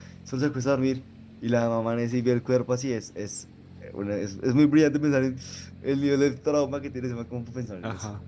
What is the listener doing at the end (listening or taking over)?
taking over